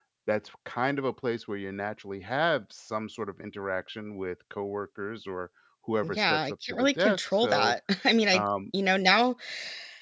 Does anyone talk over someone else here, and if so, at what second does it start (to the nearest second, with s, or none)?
6 s